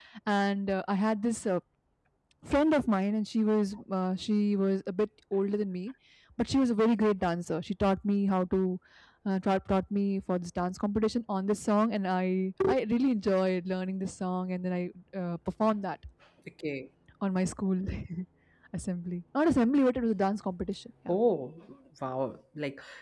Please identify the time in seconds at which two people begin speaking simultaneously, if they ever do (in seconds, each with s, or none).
none